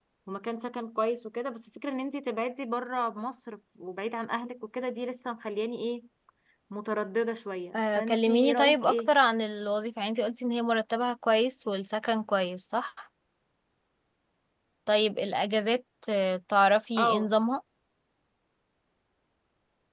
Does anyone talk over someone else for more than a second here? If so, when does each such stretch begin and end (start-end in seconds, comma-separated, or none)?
7.7-9.1